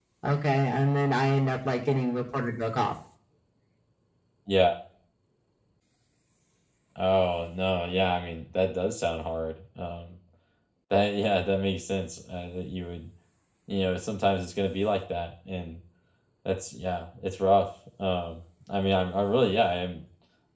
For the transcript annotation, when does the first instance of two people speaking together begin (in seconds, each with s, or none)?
none